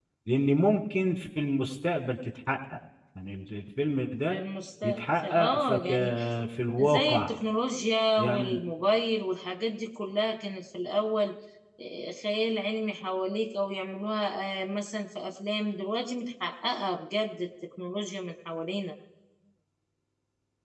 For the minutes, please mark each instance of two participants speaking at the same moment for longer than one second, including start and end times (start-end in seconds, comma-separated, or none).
4.8-6.2